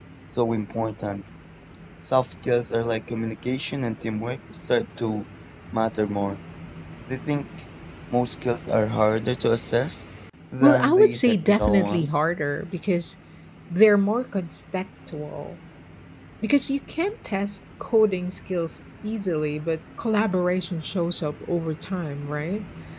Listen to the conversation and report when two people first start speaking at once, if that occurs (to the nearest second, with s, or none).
11 s